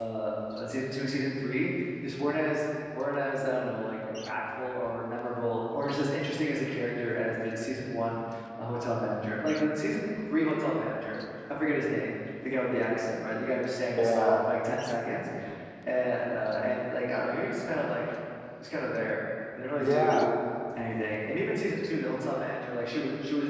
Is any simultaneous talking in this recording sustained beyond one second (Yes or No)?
No